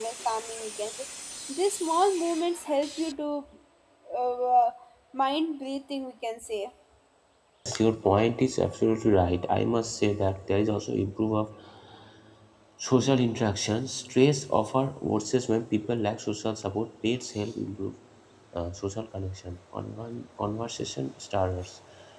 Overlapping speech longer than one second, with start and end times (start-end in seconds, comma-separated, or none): none